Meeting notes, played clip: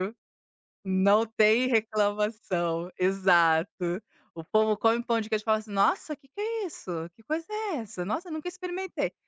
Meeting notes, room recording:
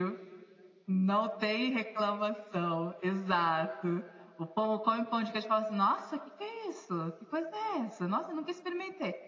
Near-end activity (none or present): none